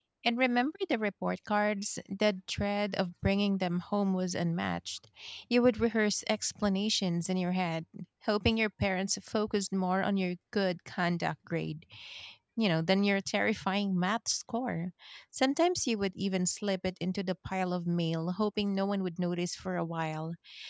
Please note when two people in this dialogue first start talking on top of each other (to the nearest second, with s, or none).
none